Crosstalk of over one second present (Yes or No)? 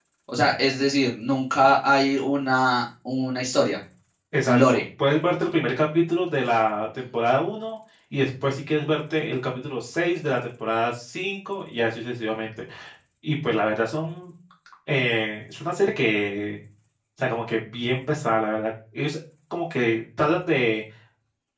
No